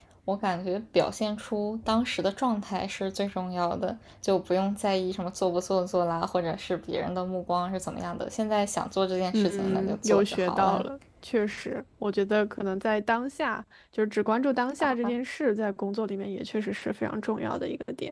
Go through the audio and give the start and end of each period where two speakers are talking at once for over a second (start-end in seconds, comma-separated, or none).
9.3-10.8